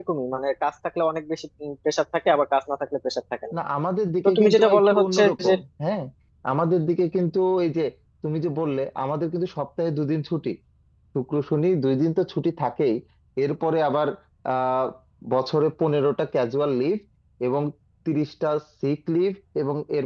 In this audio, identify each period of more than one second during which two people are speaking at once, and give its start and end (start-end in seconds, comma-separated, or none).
4.2-5.5